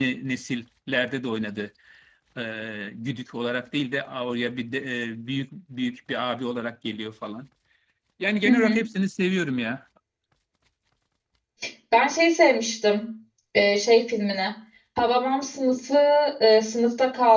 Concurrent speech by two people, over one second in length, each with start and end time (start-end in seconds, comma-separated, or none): none